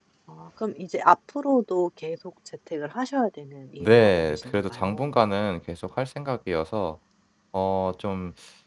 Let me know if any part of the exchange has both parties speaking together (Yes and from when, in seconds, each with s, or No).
Yes, from 3.8 s